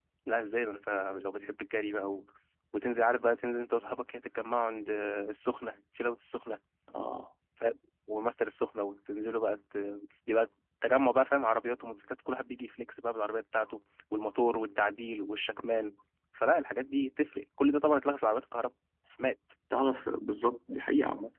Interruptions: none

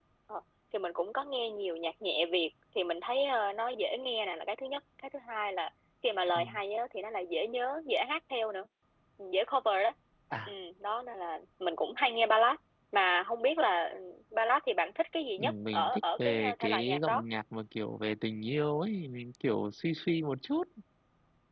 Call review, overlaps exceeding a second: present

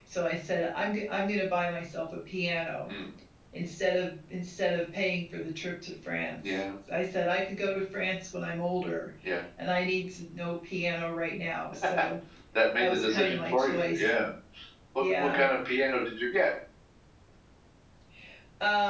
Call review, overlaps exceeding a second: present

